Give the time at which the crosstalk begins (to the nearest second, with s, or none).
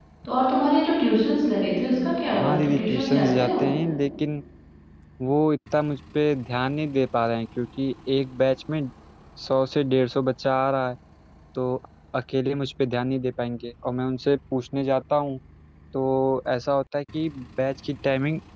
2 s